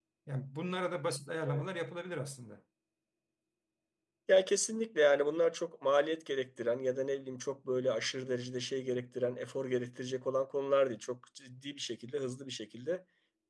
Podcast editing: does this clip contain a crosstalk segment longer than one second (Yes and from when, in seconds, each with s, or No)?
No